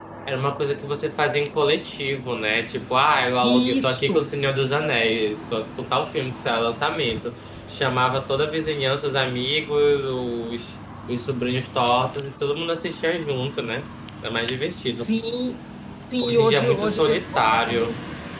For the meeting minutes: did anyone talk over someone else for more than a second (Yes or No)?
Yes